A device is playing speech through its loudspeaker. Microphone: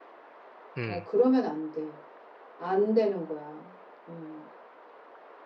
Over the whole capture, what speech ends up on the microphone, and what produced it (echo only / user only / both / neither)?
both